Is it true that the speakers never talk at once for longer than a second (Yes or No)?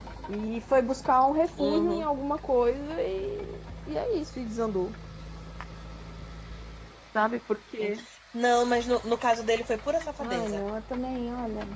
Yes